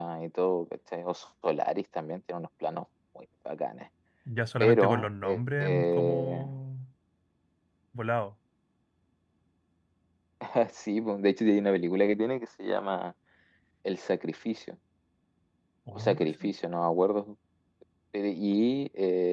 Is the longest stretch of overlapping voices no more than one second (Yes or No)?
No